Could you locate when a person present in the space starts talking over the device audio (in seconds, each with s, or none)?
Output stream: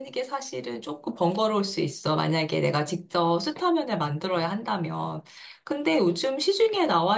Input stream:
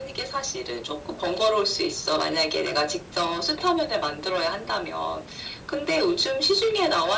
none